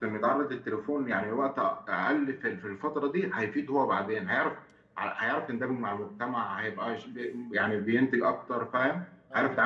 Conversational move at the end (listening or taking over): taking over